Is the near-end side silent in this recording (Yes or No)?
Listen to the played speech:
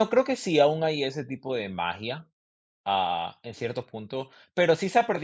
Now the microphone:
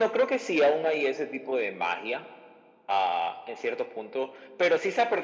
Yes